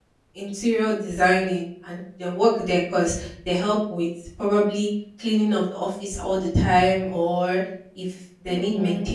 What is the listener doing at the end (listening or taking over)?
listening